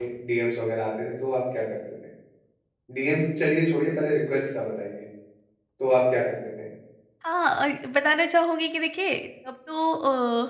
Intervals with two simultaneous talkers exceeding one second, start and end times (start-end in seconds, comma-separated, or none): none